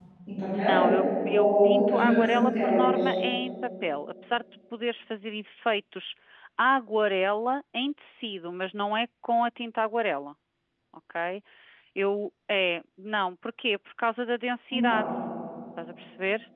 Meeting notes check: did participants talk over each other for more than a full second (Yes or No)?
Yes